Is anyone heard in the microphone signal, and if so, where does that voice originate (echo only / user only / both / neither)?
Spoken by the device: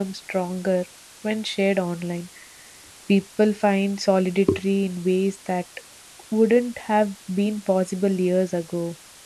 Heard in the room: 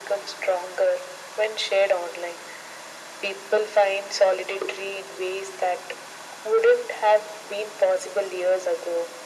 echo only